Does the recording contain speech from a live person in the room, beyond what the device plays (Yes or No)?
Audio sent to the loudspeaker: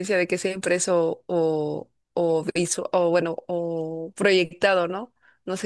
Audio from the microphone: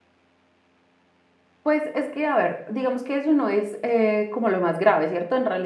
Yes